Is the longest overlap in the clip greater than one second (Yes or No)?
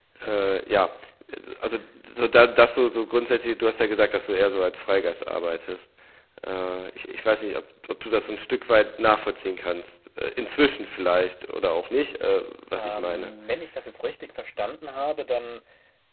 No